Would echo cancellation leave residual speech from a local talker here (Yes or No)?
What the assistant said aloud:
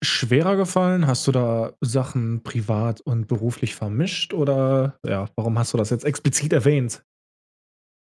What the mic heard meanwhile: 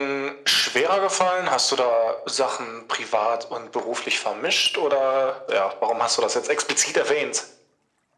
No